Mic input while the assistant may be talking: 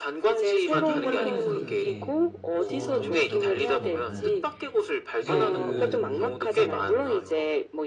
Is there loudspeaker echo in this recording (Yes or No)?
Yes